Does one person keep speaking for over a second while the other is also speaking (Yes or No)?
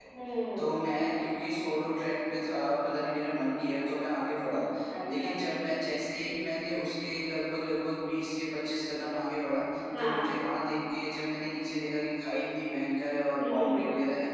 No